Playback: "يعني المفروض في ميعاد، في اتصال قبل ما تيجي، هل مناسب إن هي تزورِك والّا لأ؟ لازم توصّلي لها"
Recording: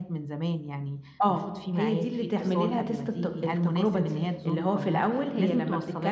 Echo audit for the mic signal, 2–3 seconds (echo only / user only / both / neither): both